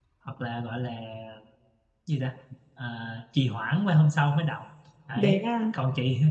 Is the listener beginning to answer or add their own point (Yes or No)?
No